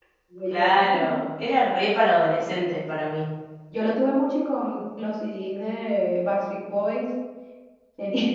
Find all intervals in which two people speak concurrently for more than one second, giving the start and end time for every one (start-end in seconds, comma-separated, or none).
none